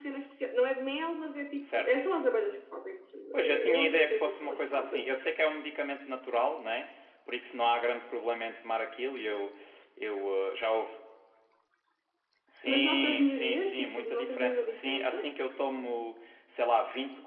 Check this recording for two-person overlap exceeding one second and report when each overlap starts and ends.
3.3-5.1, 12.7-15.3

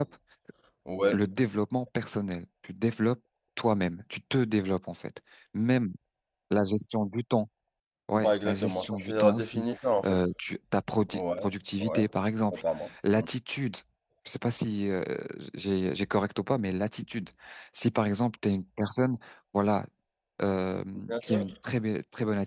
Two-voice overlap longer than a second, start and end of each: 8.2-9.7

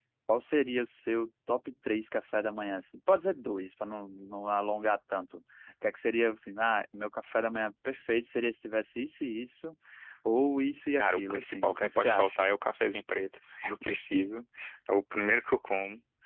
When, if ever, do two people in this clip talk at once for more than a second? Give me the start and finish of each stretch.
11.0-12.5

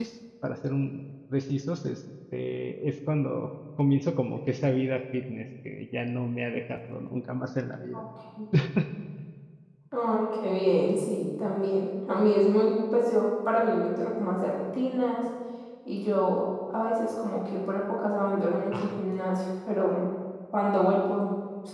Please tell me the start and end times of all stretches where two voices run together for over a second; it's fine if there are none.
none

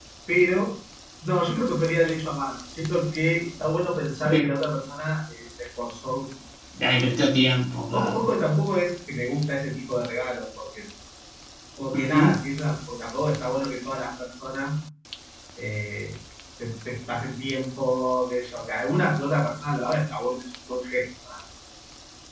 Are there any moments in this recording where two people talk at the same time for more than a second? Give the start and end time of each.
none

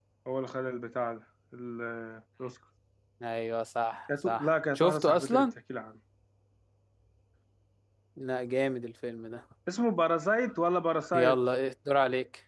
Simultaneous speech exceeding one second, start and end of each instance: 4.2-5.5

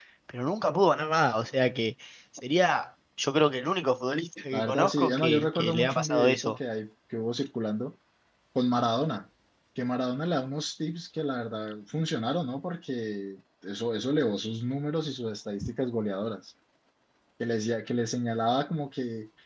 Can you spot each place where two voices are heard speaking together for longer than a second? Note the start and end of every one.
4.5-6.6

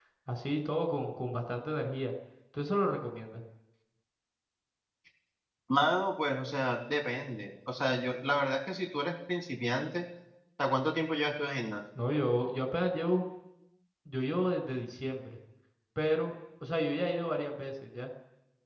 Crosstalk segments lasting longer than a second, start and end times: none

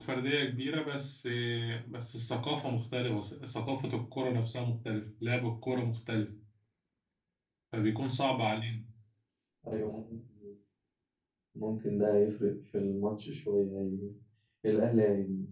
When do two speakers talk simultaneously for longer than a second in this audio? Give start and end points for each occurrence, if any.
none

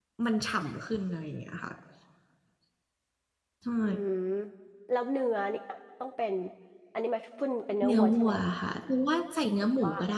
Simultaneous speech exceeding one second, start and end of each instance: none

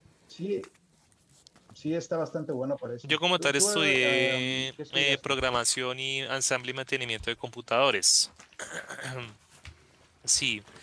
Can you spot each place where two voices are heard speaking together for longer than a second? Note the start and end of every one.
3.0-5.3

